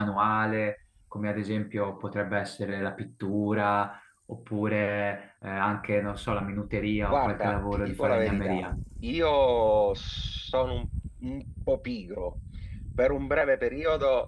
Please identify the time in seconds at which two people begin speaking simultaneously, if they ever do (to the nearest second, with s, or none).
7 s